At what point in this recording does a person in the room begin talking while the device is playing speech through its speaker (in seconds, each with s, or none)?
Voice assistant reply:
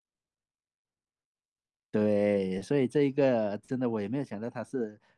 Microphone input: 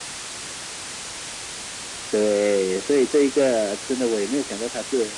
none